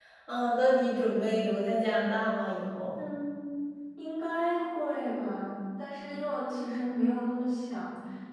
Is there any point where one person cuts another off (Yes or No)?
No